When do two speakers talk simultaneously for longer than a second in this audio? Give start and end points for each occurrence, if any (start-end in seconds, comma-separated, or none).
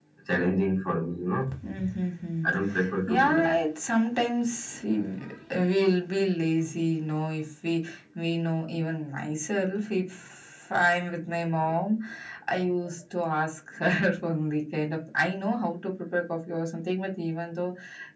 none